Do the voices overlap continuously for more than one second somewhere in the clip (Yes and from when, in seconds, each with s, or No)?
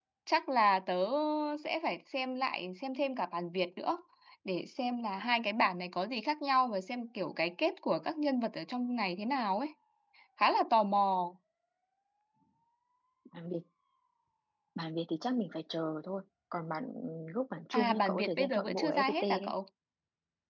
Yes, from 17.7 s